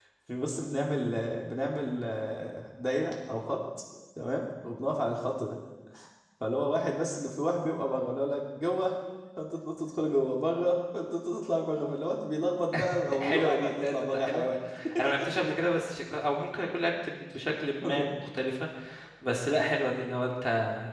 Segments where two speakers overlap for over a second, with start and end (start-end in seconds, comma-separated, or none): 13.2-14.5